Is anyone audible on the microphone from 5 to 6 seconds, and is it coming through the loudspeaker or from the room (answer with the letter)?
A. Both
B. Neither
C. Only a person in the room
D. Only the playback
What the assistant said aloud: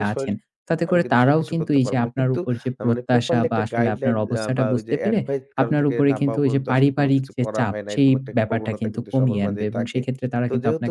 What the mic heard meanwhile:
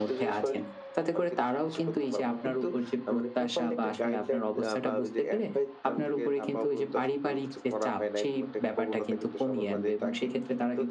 D